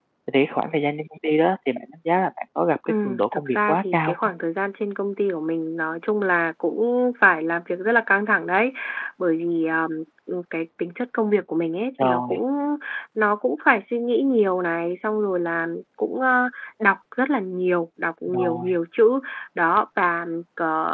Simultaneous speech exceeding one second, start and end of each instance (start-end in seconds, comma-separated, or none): 2.9-4.3